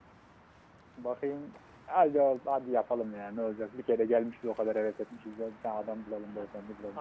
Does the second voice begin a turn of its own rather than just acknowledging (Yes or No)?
Yes